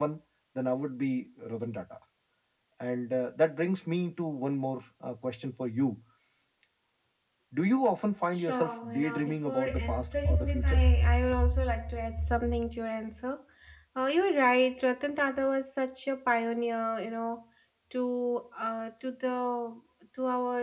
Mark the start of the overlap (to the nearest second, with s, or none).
8 s